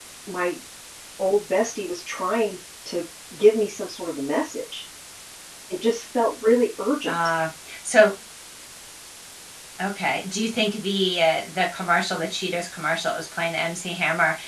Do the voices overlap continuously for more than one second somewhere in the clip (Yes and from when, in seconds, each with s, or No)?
No